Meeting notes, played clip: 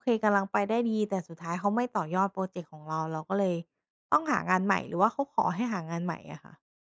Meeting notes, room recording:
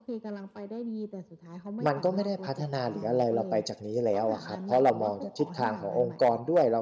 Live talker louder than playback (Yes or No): Yes